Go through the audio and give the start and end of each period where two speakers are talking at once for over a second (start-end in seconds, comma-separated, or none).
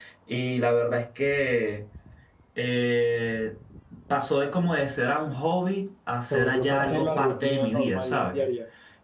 6.3-8.4